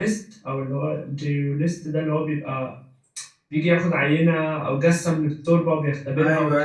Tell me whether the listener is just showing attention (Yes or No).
No